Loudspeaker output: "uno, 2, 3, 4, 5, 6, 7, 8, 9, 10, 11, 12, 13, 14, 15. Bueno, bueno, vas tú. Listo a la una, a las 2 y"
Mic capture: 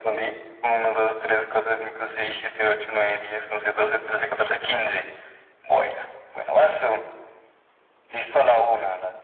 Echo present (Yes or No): Yes